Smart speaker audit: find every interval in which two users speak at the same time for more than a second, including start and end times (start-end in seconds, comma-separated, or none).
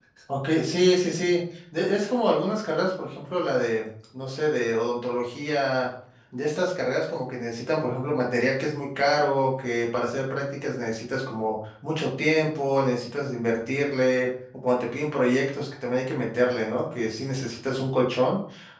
none